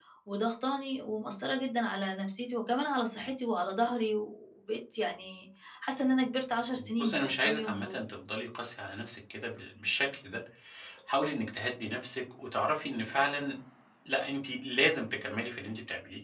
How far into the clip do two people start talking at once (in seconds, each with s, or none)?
6.8 s